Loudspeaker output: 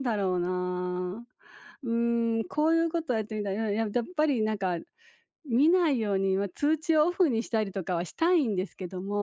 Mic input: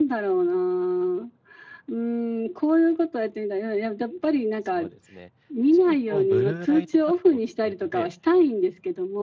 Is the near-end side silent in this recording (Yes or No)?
No